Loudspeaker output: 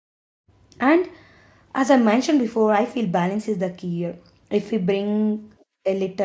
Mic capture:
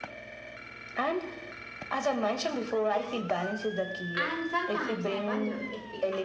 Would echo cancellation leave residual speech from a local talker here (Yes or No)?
Yes